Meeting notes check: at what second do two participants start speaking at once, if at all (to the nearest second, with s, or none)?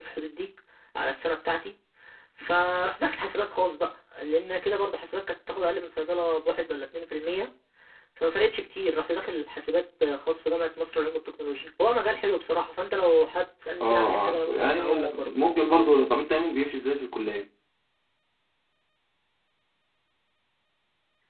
14 s